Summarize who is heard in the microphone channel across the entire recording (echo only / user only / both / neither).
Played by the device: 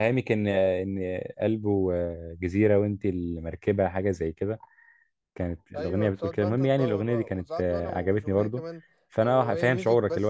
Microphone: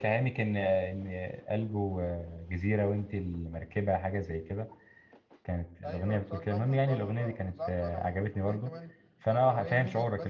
echo only